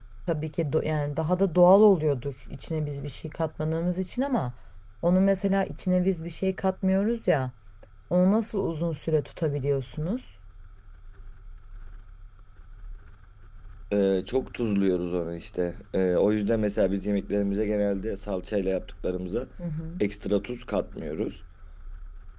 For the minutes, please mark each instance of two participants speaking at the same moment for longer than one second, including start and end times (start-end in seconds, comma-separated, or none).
none